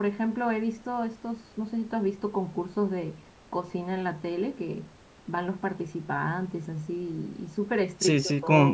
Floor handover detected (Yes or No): Yes